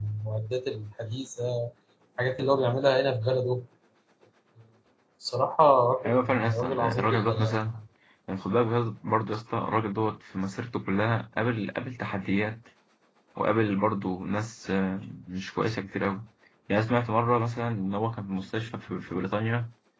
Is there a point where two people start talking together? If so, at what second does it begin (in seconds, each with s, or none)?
6.0 s